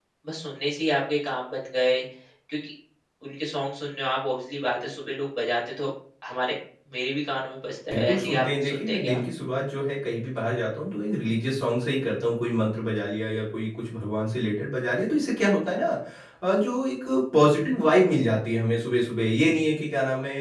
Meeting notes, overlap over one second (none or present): present